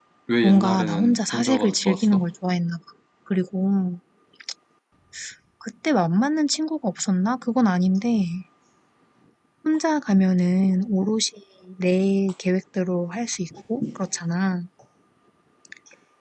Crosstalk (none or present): present